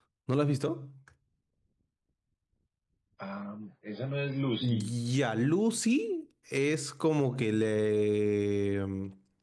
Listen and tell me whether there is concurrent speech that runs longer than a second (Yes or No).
No